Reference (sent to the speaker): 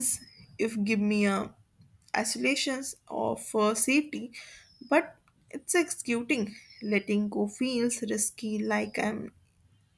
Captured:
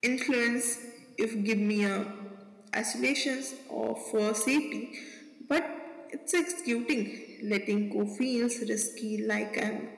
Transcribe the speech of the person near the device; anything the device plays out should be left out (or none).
none